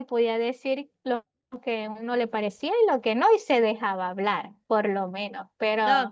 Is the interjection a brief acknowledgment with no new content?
No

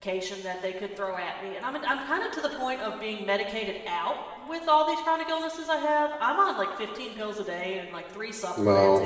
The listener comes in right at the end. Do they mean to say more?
No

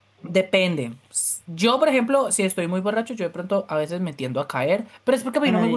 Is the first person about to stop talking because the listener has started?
No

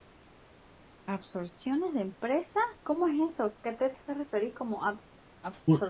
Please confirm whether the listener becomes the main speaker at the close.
Yes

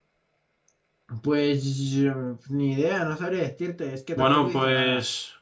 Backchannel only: No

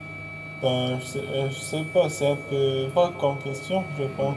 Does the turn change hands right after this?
Yes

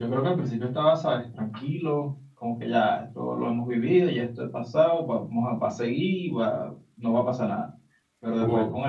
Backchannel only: Yes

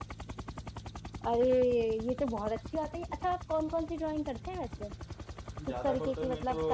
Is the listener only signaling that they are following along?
No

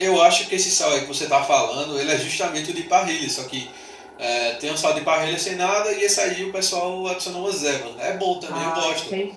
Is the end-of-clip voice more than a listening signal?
Yes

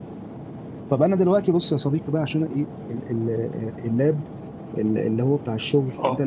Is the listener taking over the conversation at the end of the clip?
No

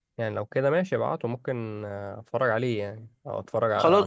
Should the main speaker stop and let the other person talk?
Yes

